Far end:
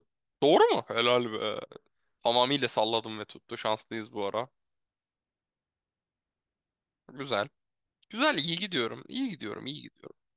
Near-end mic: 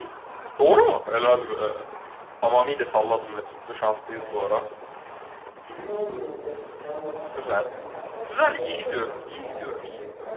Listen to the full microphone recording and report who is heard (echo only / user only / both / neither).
both